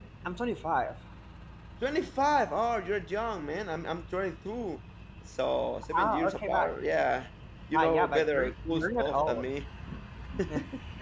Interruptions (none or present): present